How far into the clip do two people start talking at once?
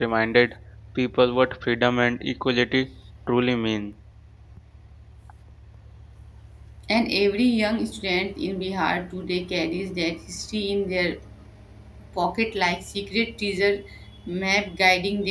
none

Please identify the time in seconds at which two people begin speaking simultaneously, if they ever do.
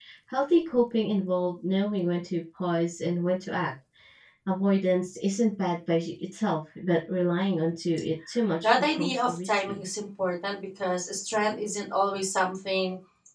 8.6 s

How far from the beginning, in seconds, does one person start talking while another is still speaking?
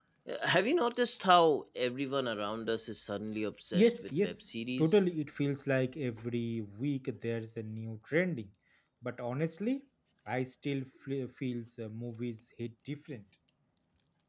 3.7 s

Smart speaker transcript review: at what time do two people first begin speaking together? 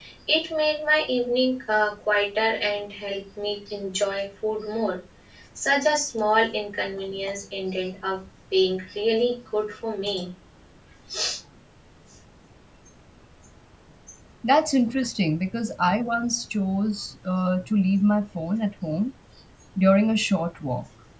none

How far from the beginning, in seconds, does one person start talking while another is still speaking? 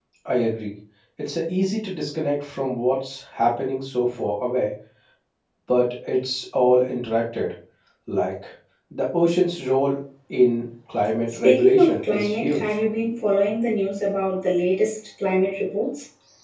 11.4 s

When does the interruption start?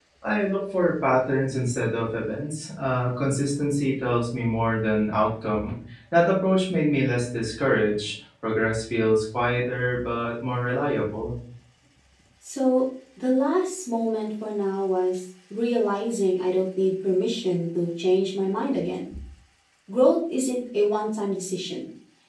none

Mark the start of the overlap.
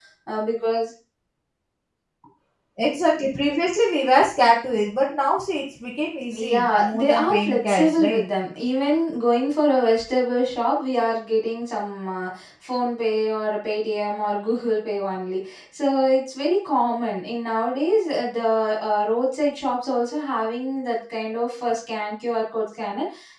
6.3 s

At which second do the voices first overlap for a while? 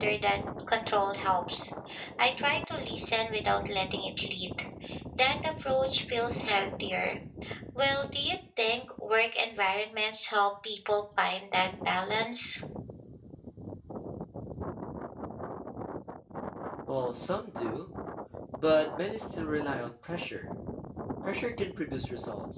none

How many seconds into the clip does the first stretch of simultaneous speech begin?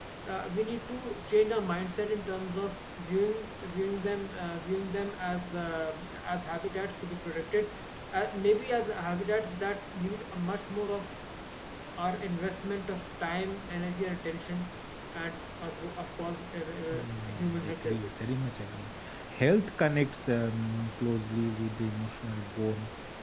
16.8 s

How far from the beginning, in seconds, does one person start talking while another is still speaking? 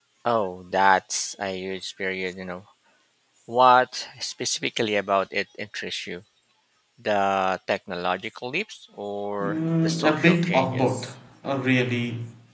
9.4 s

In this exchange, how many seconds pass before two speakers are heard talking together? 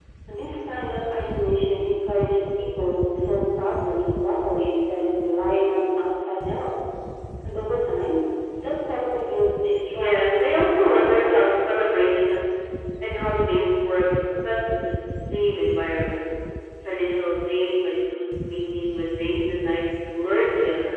10.0 s

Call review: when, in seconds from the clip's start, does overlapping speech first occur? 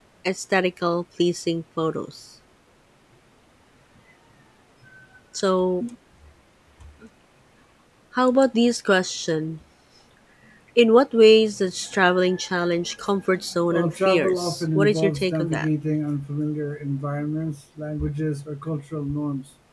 13.7 s

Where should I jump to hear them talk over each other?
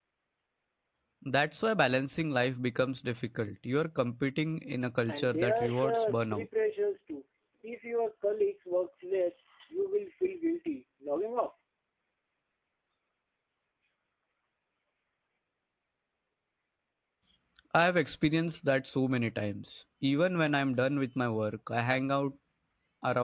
5.1 s

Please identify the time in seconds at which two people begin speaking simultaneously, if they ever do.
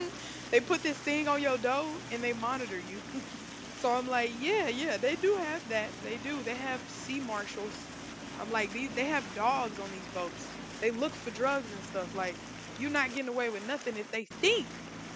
none

